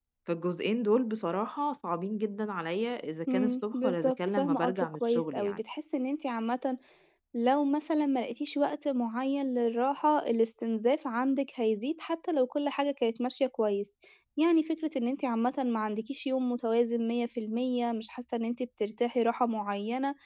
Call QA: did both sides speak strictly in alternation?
No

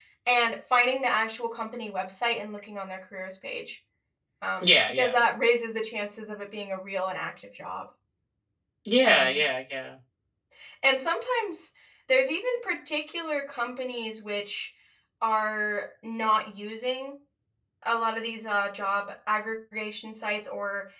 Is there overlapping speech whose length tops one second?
No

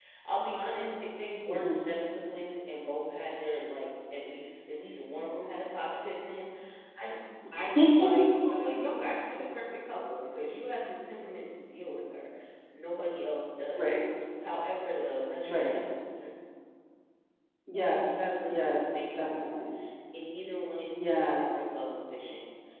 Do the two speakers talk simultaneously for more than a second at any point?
Yes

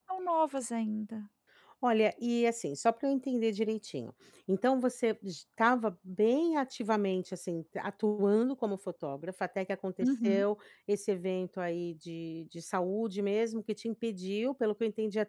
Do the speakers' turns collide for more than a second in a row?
No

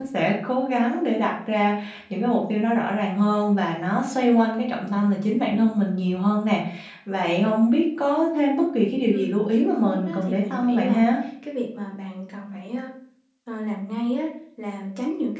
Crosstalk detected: Yes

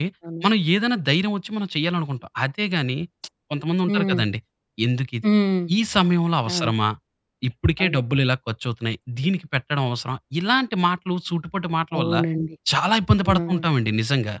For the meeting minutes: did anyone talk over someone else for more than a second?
No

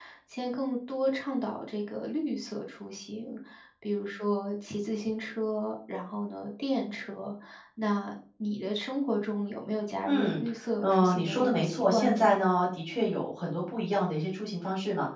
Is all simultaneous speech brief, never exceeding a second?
No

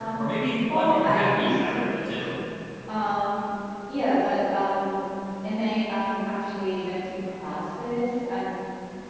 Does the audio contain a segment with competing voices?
Yes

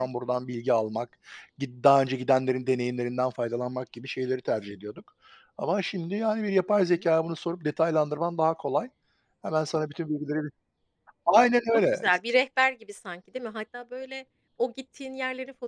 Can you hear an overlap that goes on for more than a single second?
No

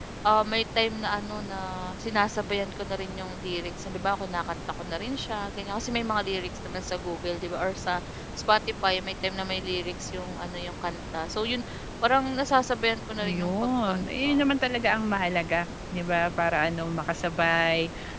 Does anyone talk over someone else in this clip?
Yes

